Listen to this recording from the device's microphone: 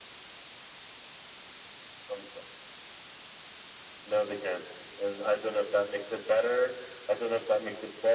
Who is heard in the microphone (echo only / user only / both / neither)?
echo only